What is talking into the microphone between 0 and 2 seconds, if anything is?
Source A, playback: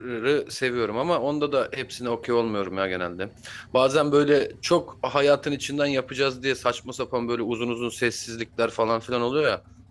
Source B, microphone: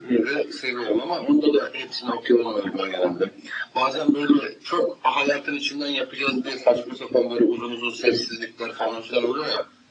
echo only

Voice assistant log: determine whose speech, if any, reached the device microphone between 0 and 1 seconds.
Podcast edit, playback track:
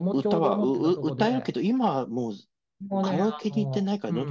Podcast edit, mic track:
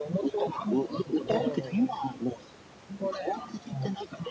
echo only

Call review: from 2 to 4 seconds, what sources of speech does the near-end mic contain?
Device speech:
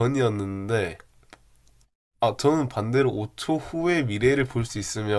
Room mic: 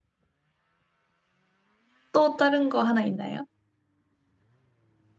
user only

